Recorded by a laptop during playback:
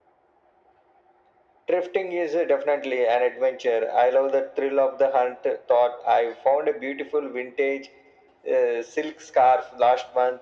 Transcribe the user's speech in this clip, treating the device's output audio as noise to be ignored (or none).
none